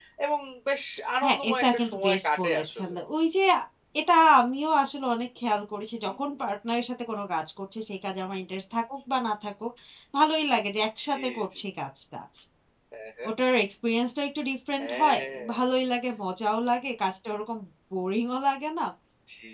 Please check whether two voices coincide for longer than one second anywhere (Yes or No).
Yes